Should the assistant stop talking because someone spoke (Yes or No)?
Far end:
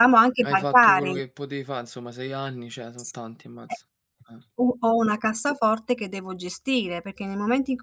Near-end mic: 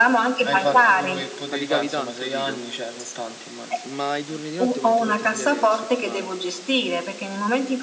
Yes